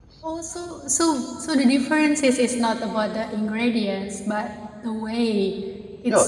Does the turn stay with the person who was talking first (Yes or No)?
No